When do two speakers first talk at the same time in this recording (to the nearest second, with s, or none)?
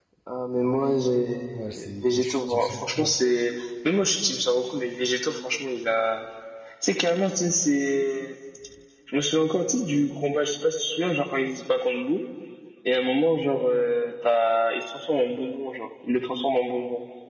2 s